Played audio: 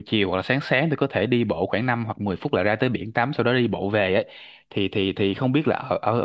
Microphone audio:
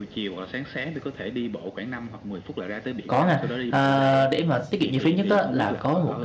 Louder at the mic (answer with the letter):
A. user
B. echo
A